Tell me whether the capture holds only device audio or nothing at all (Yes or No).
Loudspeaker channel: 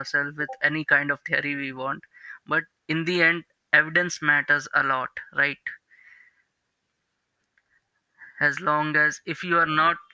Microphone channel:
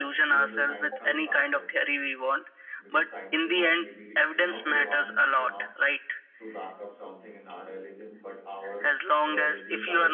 No